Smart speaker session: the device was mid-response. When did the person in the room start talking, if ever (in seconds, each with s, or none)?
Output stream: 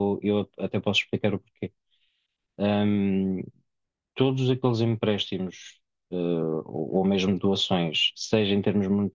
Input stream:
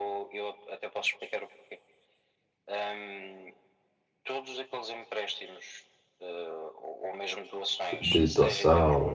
8.0 s